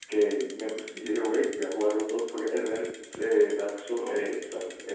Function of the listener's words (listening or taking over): listening